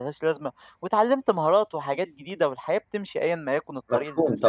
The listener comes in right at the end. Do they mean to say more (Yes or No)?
Yes